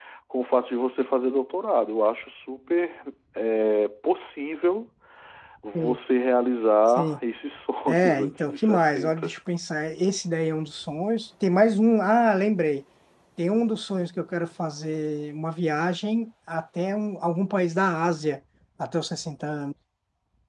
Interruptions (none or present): present